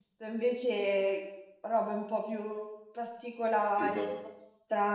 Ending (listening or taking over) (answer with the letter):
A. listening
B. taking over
A